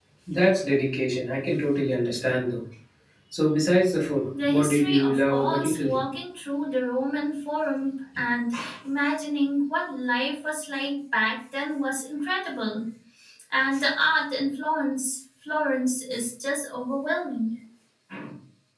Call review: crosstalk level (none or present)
present